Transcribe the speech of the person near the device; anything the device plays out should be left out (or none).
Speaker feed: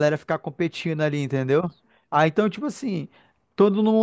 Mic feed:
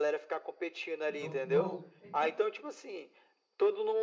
No, no, então,